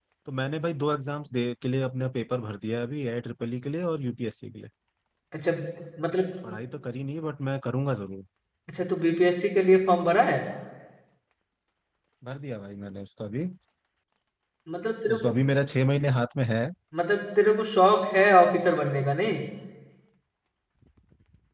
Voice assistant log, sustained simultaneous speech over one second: none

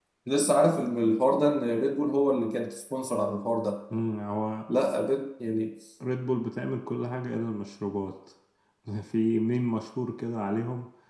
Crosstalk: none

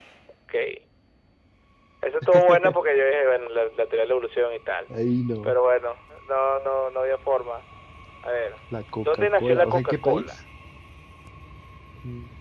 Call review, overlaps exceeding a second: present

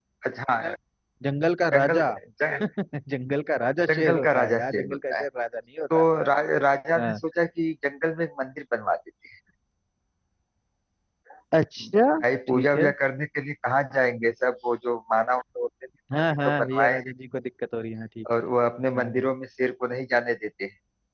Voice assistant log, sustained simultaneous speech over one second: present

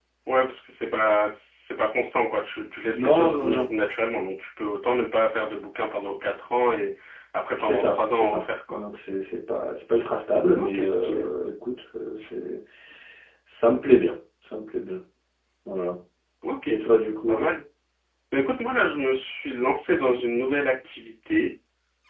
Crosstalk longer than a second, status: present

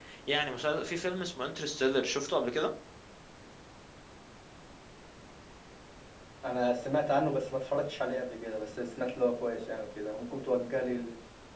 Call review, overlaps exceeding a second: none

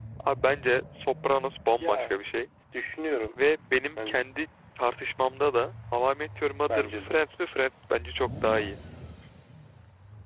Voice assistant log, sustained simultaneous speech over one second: none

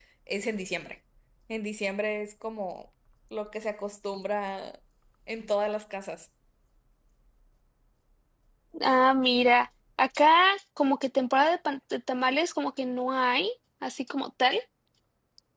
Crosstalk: none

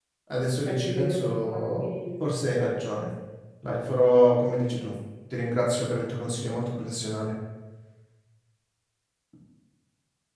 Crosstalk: present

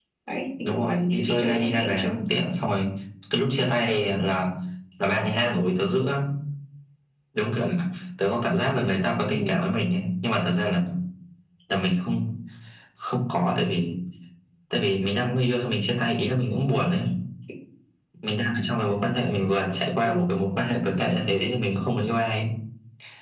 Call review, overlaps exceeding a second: present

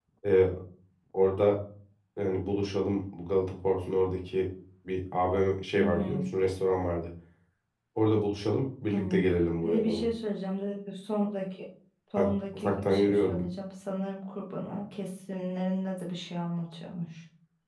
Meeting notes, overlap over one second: present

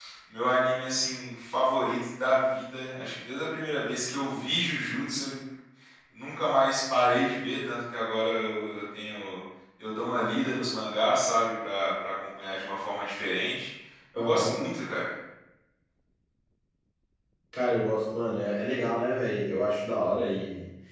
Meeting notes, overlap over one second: none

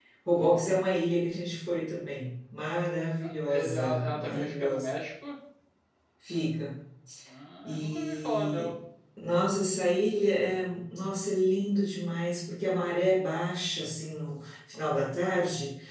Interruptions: present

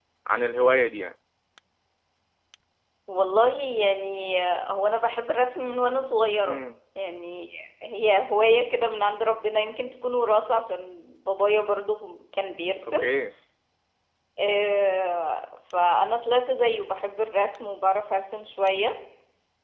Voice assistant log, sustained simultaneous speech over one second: none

